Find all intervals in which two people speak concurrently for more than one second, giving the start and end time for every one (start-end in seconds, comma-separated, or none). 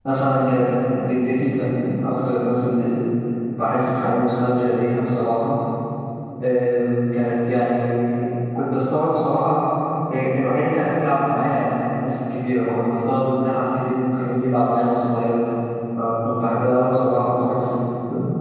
none